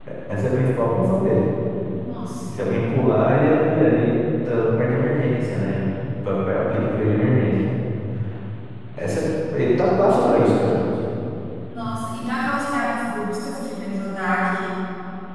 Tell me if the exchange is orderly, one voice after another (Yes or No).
Yes